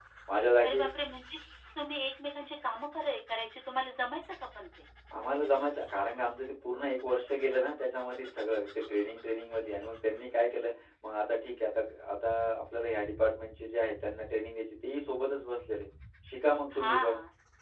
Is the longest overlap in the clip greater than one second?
No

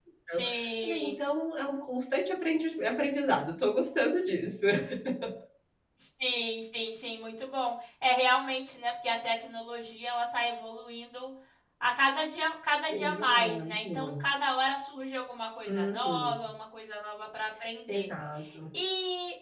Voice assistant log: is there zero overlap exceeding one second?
No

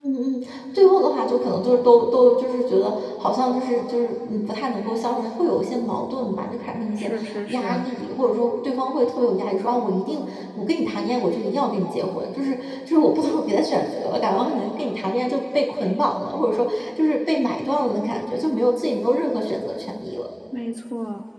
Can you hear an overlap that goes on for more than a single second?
No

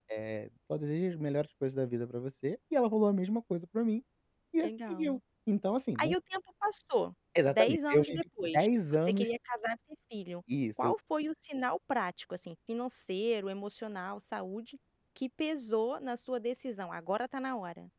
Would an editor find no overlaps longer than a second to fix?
No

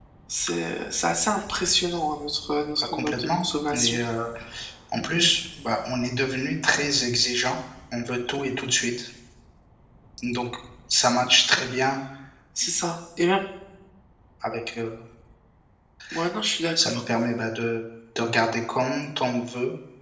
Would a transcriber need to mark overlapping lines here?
Yes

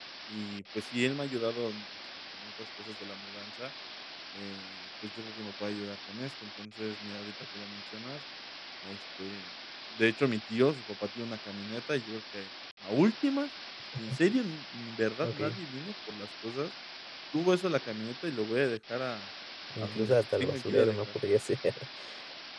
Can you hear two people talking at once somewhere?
Yes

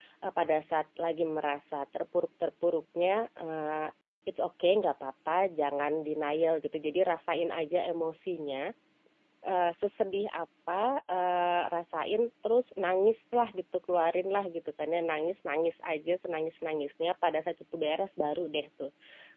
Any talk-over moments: No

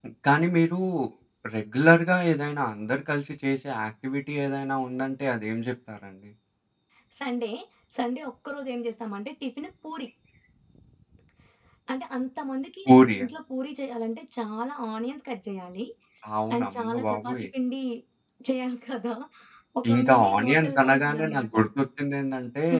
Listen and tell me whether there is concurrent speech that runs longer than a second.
Yes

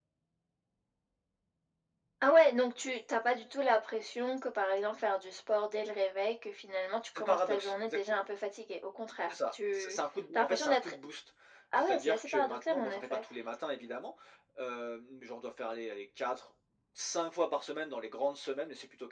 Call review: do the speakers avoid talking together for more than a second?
No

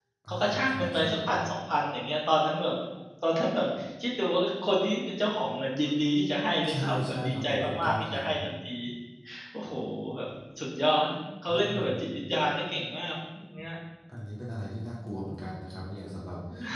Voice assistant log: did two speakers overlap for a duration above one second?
Yes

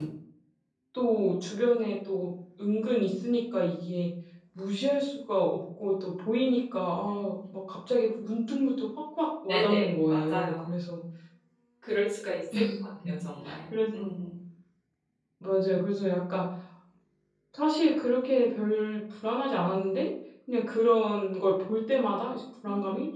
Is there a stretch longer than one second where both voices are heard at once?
Yes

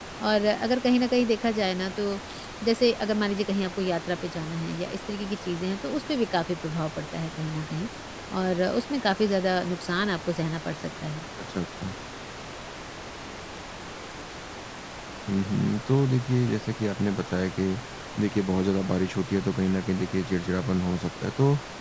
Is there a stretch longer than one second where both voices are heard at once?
No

